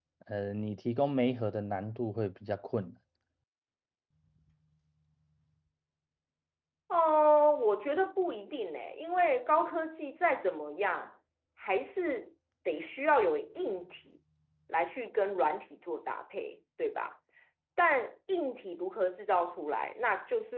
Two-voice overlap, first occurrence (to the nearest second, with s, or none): none